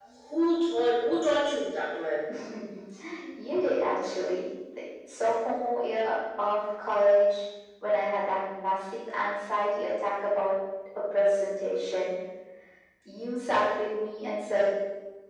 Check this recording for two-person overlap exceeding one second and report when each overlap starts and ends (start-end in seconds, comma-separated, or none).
none